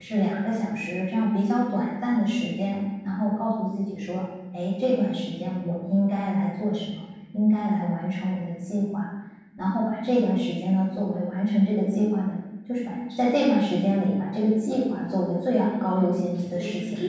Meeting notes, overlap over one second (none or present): present